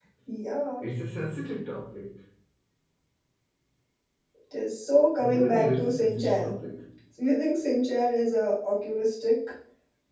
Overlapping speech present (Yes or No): Yes